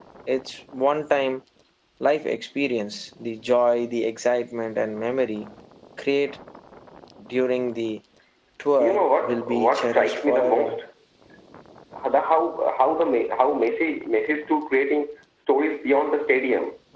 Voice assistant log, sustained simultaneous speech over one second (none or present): present